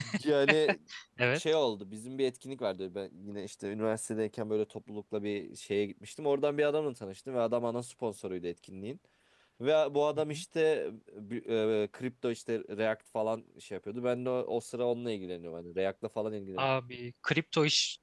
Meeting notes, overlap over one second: none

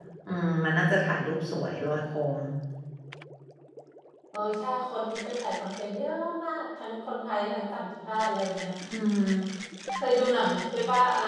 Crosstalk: none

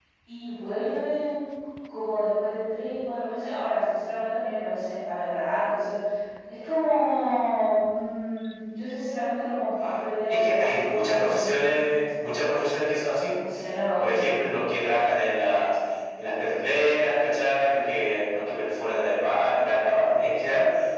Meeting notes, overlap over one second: present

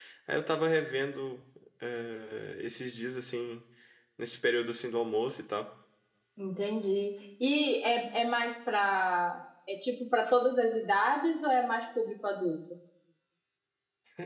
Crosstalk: none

